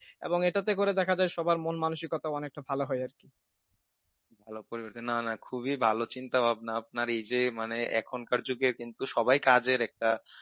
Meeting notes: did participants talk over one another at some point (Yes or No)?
No